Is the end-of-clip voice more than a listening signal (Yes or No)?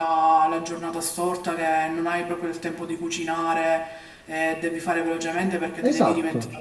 No